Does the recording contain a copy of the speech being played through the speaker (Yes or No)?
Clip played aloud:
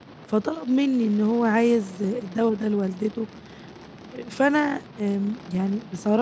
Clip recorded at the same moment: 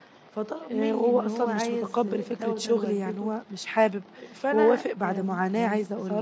Yes